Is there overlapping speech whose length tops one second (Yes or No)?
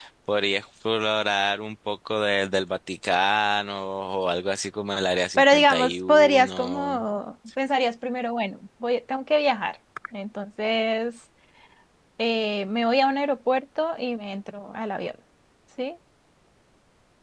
Yes